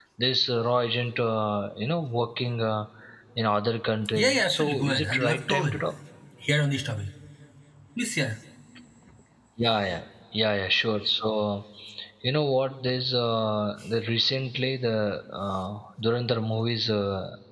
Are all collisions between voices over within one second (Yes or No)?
No